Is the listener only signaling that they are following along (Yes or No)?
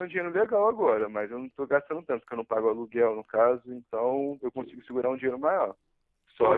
Yes